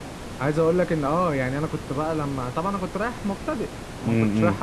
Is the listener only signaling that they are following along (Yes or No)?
Yes